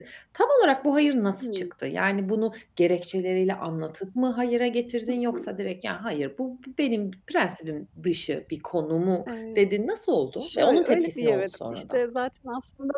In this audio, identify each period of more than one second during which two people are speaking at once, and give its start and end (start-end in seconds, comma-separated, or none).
10.4-12.0